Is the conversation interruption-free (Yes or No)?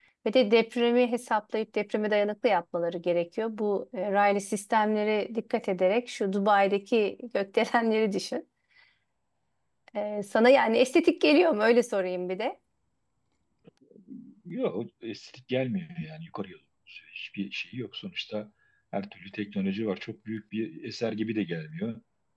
Yes